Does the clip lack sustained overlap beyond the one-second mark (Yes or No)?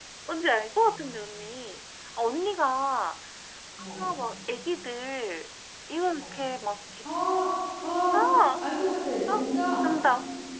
Yes